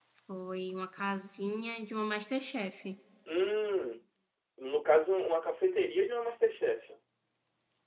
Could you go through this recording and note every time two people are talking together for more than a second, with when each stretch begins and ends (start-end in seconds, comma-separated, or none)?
none